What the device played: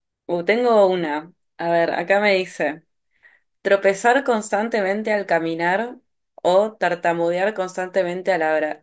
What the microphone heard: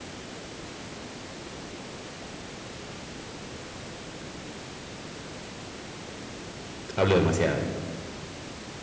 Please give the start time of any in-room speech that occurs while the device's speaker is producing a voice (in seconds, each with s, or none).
7.0 s